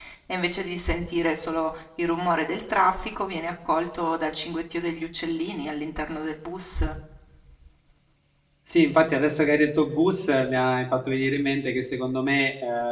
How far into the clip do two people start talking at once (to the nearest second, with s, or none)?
none